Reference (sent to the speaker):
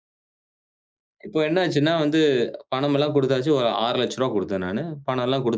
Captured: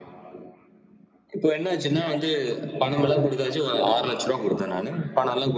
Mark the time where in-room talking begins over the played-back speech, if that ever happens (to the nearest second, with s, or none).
none